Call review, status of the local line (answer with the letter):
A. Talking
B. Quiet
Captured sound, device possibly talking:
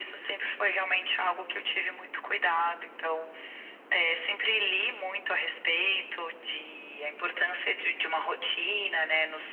B